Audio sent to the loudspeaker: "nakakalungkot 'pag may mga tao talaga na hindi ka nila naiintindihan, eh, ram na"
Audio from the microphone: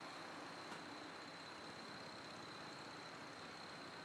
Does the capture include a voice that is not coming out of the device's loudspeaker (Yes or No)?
No